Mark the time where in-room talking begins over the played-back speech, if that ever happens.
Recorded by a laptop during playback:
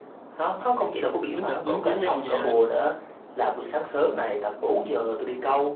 1 s

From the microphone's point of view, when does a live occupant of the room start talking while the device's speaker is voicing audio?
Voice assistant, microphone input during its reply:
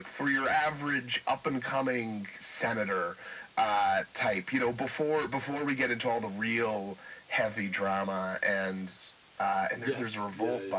10 s

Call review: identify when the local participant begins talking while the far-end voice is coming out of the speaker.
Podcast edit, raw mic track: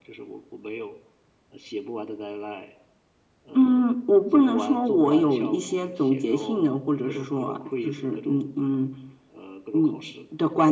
none

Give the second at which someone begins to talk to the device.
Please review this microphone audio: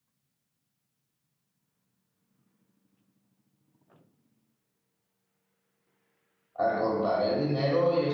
7 s

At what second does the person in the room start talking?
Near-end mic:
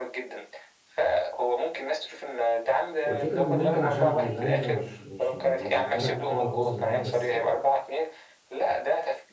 3 s

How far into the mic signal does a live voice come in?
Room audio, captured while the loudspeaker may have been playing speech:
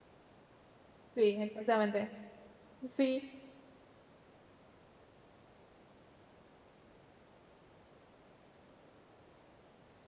1 s

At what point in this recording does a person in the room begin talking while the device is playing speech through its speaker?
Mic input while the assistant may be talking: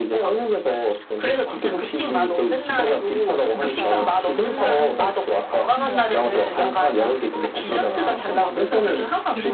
3 s

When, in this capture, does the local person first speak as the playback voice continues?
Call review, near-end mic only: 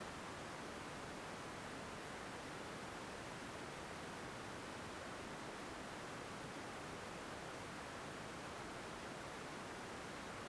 none

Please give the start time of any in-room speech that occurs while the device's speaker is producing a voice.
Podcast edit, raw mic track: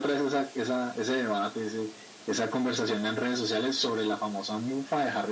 none

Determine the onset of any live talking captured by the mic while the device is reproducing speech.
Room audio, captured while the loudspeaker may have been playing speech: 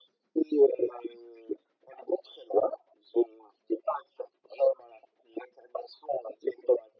none

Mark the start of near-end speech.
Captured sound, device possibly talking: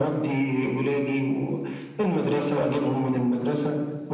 none

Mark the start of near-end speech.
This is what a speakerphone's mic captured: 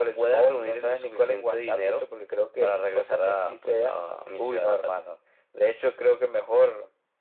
none

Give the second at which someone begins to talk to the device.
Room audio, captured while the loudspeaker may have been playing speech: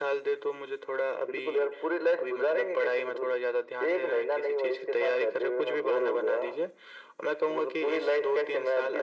none

